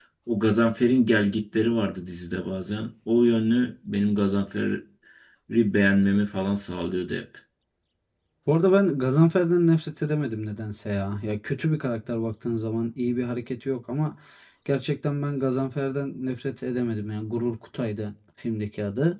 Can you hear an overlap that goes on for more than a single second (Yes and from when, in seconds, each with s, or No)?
No